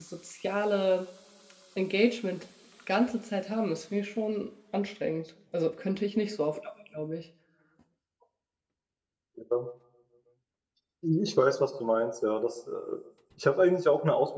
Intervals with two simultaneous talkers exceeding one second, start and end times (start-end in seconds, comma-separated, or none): none